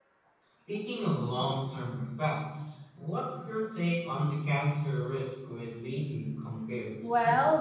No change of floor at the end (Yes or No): No